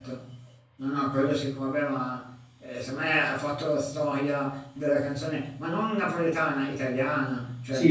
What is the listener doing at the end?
taking over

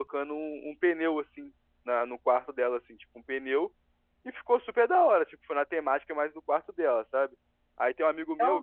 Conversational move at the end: listening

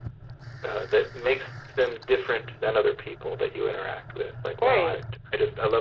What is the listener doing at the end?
listening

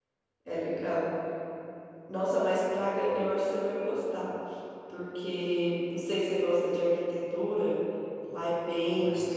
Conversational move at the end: listening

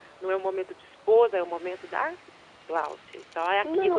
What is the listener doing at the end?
taking over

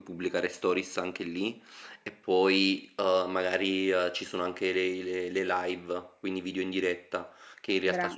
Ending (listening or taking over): listening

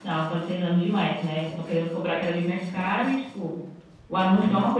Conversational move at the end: listening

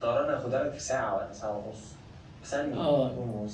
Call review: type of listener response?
taking over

